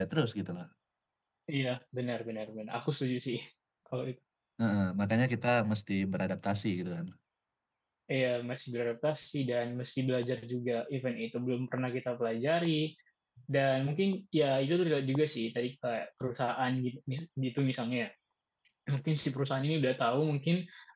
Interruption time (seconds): none

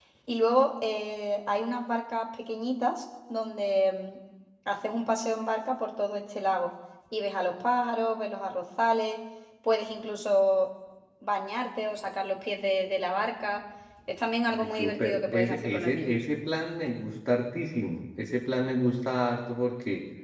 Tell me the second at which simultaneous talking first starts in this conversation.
14.6 s

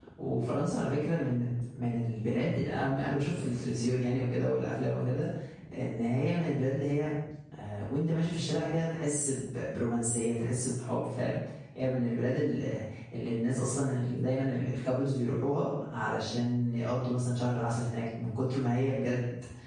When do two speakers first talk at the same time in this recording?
none

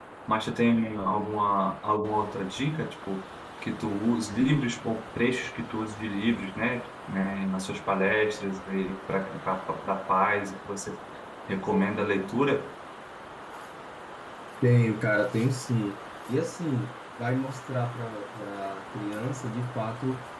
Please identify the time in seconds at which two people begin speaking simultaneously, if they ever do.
none

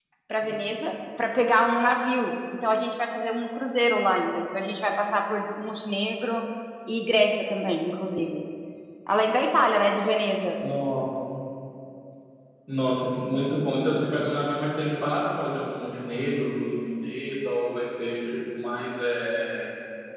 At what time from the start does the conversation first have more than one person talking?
none

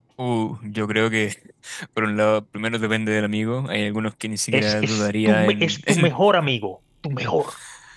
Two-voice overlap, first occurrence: 4.5 s

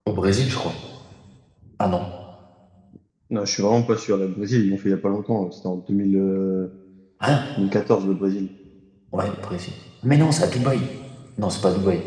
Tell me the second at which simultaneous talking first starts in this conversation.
none

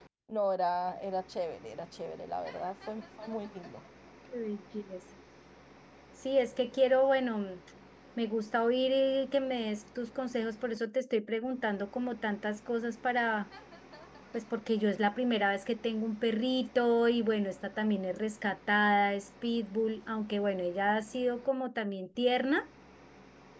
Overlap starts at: none

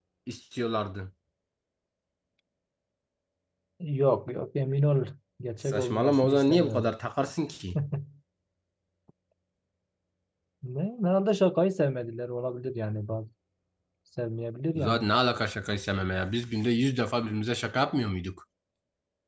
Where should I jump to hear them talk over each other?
5.7 s

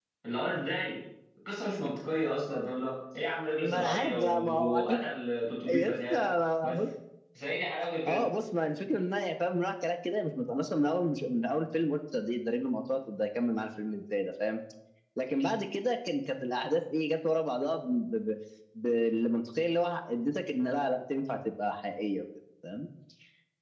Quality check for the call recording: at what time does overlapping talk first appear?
3.6 s

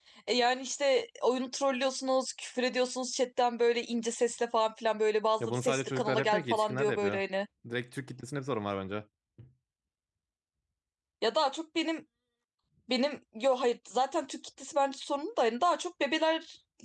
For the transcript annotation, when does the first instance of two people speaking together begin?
5.4 s

